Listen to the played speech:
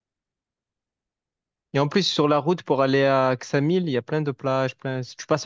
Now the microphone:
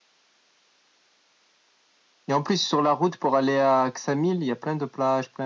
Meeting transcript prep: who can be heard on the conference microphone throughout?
echo only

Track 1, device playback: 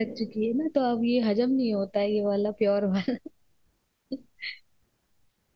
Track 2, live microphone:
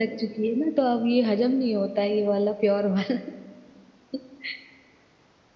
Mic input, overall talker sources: echo only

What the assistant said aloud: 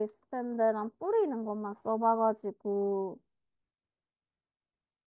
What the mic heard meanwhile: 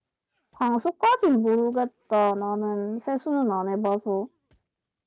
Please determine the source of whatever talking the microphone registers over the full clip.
user only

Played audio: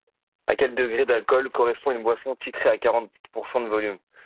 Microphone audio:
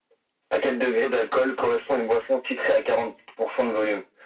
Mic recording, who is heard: echo only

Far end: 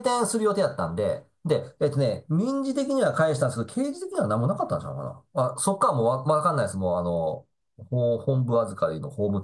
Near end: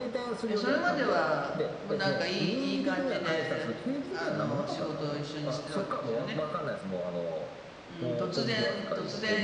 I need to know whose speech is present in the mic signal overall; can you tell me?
both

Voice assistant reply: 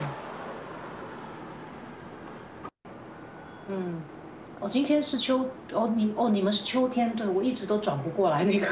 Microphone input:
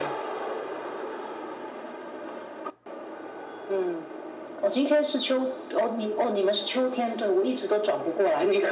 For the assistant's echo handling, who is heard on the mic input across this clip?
echo only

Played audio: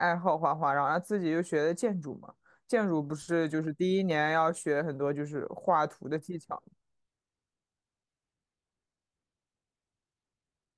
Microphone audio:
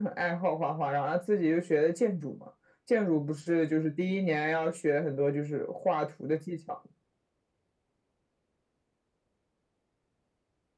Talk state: echo only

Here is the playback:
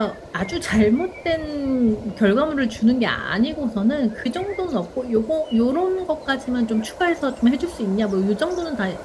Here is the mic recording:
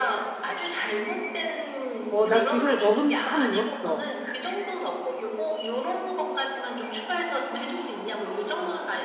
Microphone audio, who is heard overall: both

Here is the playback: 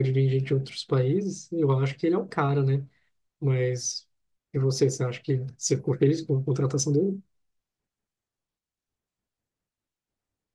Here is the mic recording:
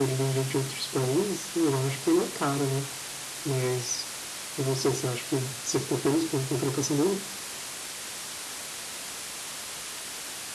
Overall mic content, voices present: echo only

